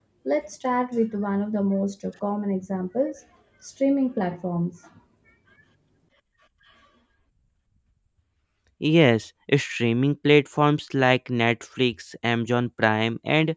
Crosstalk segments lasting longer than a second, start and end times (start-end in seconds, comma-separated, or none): none